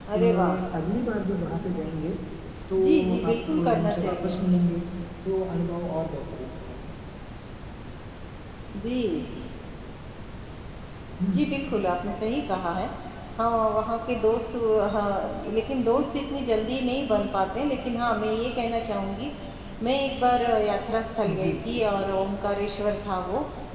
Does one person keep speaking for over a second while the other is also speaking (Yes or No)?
Yes